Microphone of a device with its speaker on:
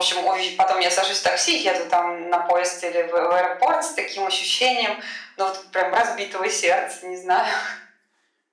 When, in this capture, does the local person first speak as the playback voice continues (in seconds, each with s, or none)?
none